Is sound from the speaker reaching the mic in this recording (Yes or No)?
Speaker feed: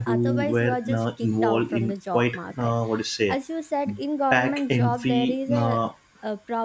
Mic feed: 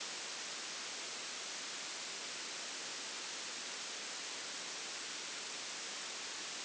No